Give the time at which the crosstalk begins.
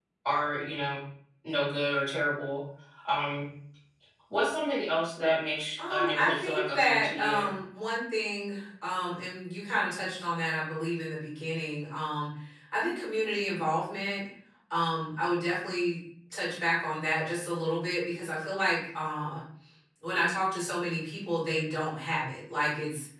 5.8 s

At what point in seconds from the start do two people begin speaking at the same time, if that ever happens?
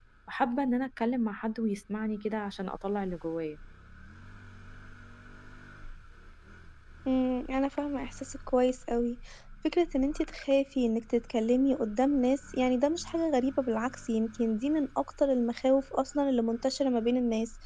none

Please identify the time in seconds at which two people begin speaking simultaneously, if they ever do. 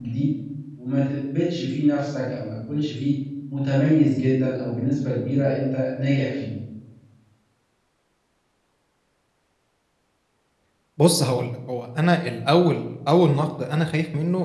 none

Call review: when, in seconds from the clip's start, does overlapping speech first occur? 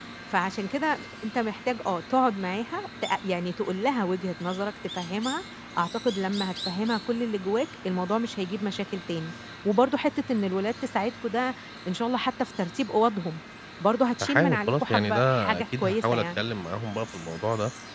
14.2 s

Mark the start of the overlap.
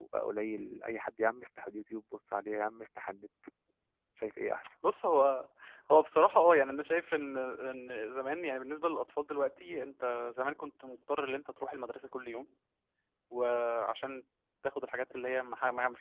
none

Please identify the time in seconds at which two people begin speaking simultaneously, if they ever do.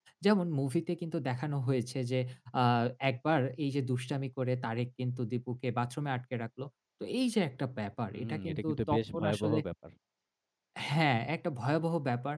8.1 s

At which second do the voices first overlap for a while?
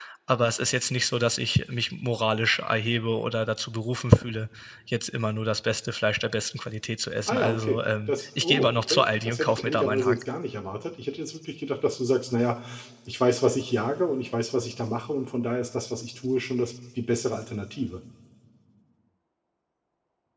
7.3 s

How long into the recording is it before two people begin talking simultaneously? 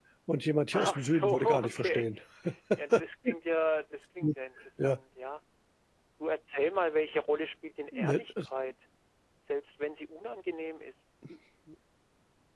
0.7 s

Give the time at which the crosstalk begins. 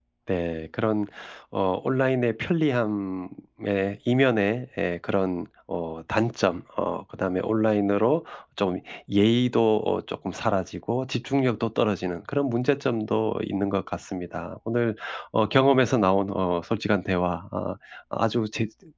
none

